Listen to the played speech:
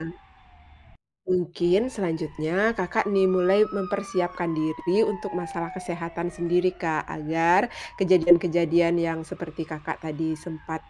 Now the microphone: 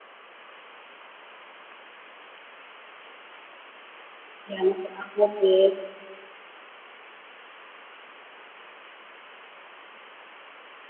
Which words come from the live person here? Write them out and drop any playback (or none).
ya masuk akal sih.